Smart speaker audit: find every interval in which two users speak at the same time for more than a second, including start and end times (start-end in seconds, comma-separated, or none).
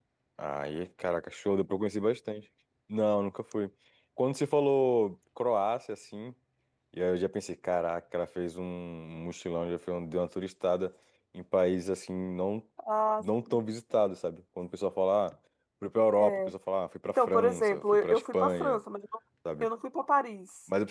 17.0-18.8